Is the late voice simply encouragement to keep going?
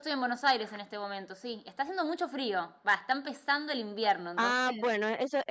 No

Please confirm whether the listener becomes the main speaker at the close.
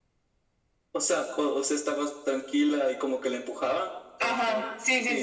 Yes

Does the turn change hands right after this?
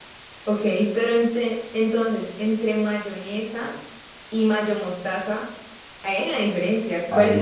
Yes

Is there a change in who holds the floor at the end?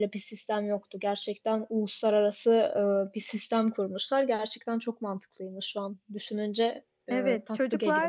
Yes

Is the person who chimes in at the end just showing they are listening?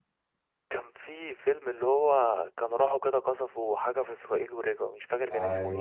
No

